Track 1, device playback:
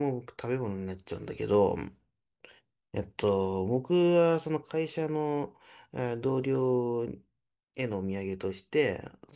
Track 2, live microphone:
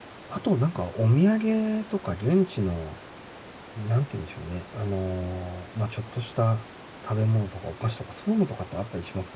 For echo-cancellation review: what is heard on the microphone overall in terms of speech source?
user only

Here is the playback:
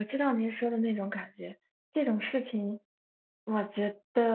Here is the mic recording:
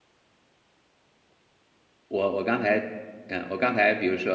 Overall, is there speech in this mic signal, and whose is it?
user only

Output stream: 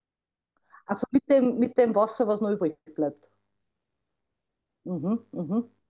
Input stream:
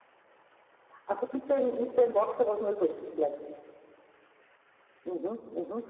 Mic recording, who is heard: echo only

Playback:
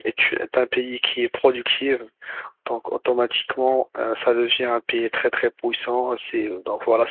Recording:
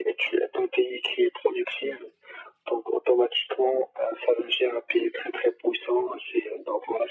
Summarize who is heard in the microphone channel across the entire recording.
echo only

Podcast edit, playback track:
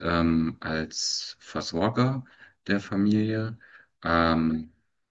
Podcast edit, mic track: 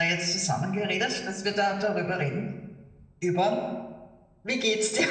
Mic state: user only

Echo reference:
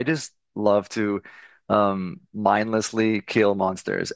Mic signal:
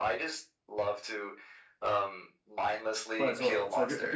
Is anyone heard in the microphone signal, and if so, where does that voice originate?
both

